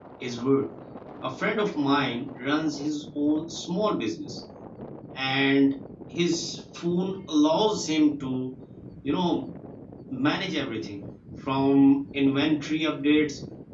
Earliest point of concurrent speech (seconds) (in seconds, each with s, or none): none